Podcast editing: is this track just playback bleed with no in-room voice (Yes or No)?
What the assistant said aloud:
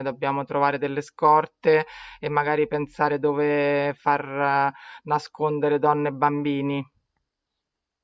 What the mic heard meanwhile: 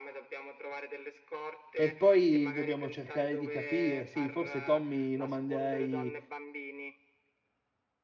No